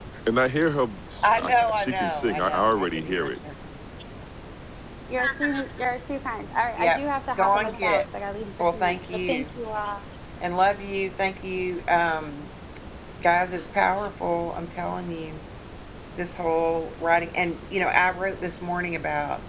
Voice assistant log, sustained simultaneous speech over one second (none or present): present